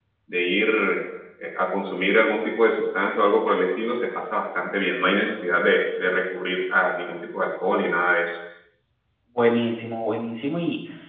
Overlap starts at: none

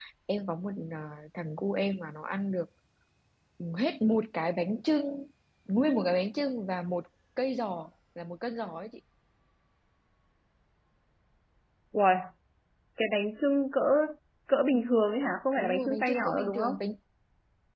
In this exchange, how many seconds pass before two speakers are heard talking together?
15.6 s

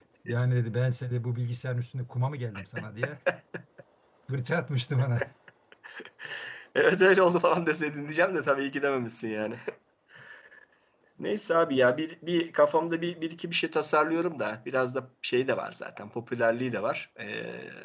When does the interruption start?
none

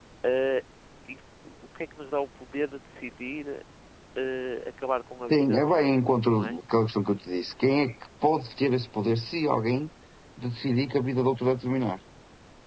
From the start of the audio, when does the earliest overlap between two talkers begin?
5.3 s

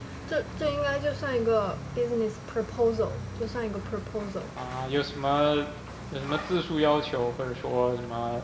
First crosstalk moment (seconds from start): none

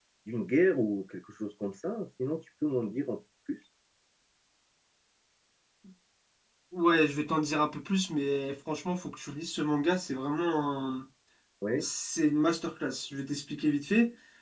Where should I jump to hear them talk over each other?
none

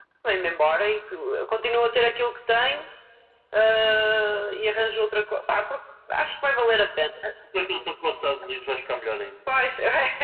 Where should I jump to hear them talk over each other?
none

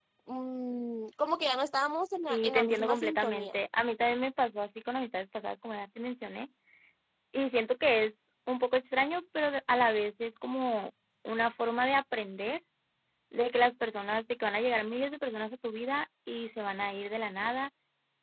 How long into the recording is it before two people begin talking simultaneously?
2.3 s

